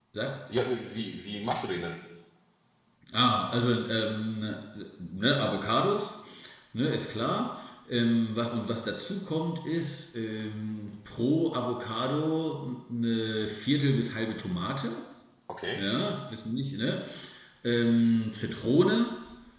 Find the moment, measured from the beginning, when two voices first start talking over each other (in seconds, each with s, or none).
none